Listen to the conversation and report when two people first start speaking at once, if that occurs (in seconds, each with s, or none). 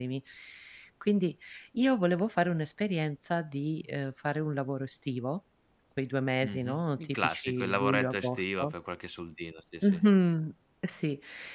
6.4 s